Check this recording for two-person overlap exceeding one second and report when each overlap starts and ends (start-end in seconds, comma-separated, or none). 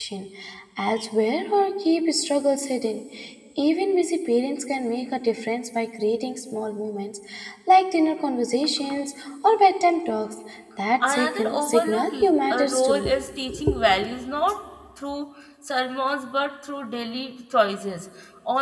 11.1-13.1